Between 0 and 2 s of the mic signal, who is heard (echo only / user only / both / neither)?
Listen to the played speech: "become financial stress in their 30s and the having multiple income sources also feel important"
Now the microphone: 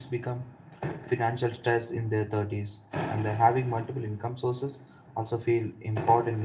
echo only